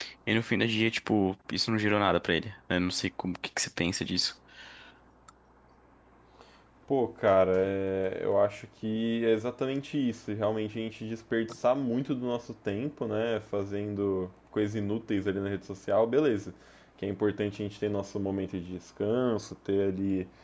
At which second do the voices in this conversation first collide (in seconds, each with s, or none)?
none